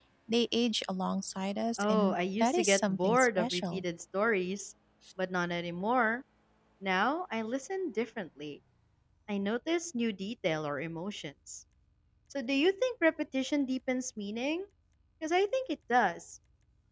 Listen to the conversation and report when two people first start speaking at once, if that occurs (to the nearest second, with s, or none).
2 s